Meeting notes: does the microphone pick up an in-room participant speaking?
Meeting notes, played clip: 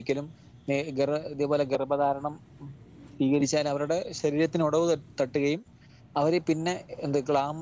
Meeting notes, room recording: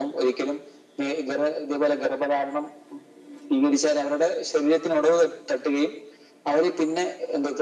No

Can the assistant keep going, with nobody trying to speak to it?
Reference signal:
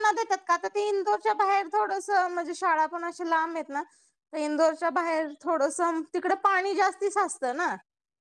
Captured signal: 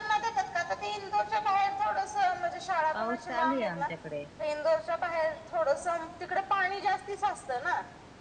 No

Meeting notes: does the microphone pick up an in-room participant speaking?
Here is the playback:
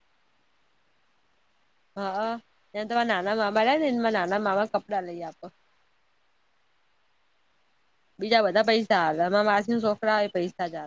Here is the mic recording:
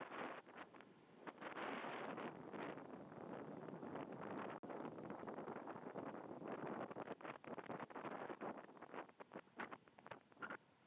No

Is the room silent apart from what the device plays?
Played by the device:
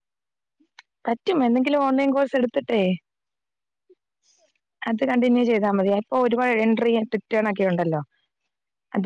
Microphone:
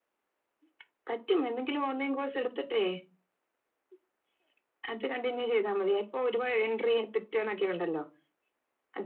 Yes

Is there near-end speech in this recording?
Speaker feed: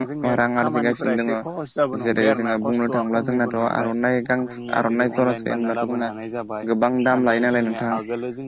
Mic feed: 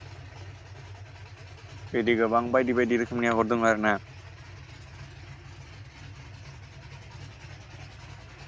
Yes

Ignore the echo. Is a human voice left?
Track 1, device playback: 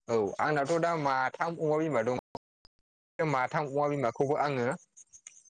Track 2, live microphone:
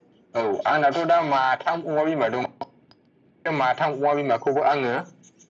No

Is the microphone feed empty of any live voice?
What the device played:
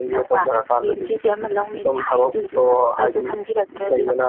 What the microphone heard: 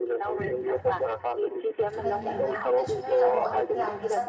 No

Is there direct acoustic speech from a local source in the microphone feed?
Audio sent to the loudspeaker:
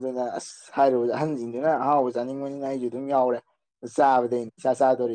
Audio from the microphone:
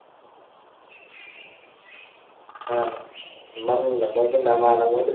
Yes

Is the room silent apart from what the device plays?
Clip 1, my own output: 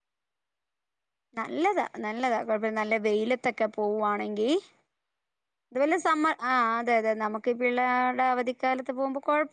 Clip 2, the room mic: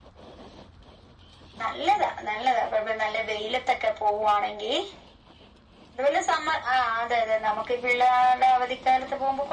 Yes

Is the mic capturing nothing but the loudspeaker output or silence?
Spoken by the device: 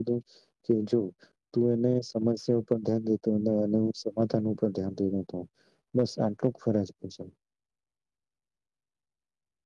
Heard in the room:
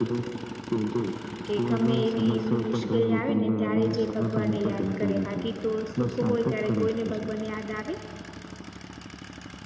No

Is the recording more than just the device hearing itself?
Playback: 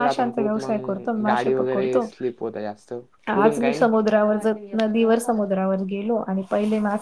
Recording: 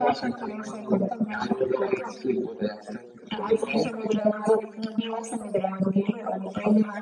No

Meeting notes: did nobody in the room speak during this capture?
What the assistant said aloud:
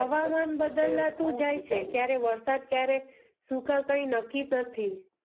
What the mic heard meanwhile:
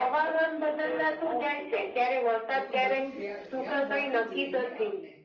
No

